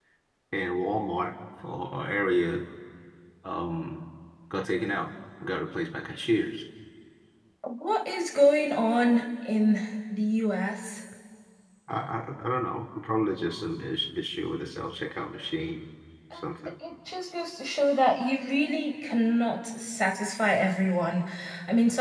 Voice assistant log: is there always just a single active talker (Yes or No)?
Yes